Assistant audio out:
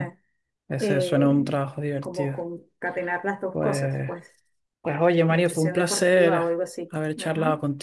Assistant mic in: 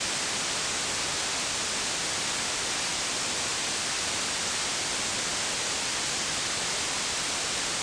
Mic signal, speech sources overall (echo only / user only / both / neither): neither